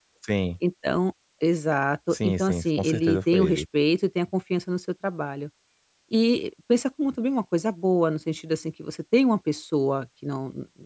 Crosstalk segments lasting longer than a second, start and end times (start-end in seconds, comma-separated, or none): 2.1-3.6